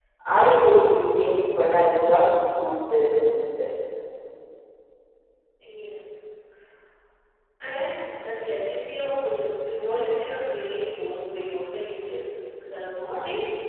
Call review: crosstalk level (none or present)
none